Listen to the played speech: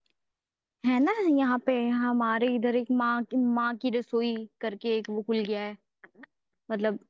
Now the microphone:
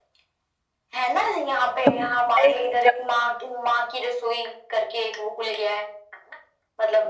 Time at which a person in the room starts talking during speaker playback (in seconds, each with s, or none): 1.6 s